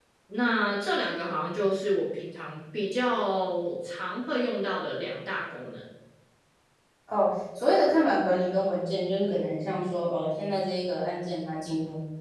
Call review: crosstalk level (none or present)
none